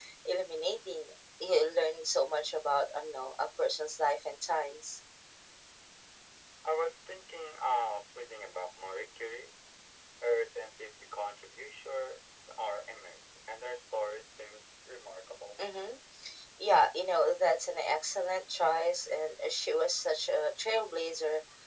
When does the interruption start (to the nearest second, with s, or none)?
none